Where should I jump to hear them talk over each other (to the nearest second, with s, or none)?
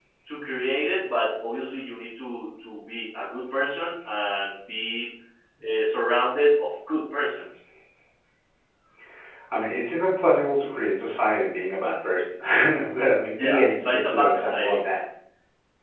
13 s